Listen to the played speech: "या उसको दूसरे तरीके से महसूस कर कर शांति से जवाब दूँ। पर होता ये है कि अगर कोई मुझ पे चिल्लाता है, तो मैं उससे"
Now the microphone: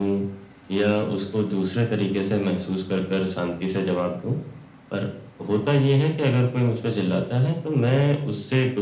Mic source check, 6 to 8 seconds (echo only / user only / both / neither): echo only